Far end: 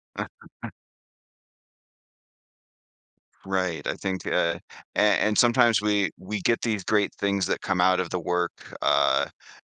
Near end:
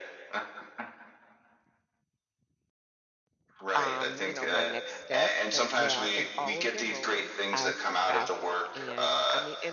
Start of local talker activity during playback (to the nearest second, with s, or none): 4 s